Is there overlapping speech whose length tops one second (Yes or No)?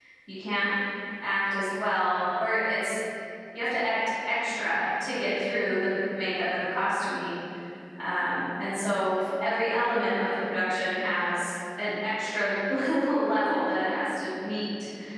No